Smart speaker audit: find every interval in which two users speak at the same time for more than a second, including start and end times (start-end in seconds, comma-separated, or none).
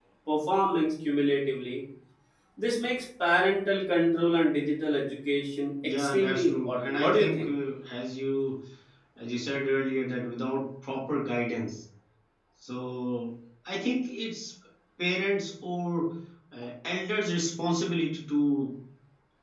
6.0-7.5